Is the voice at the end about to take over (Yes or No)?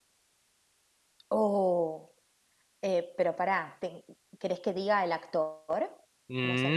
Yes